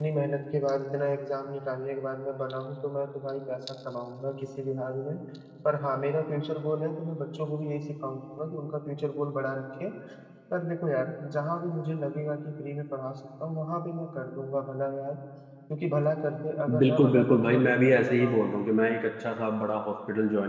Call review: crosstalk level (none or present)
present